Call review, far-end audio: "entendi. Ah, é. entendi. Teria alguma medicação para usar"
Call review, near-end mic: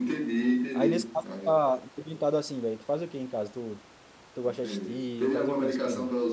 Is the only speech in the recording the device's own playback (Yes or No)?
No